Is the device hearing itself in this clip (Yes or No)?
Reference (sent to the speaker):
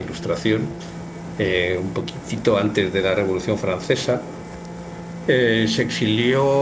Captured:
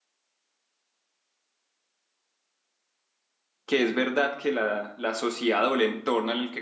No